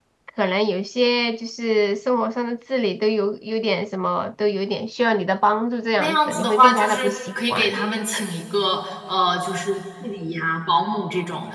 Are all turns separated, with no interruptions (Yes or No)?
No